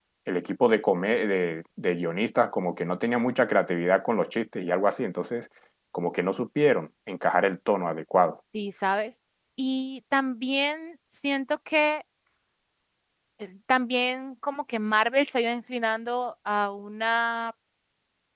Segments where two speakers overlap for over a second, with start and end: none

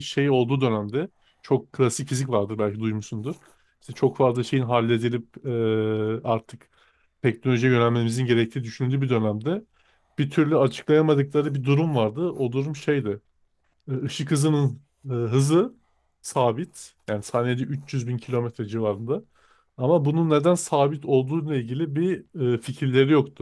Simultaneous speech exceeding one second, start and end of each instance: none

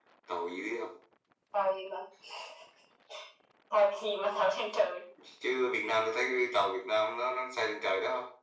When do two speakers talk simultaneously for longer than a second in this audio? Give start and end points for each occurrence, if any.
none

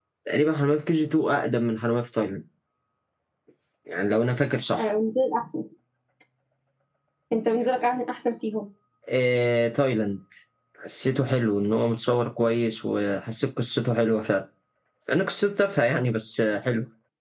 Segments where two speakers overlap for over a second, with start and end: none

